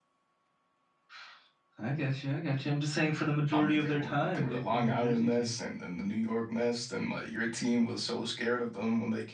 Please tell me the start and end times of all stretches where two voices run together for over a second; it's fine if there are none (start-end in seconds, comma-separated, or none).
3.5-5.5